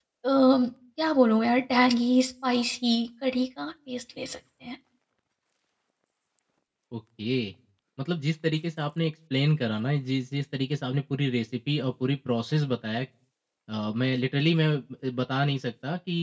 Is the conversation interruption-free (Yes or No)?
Yes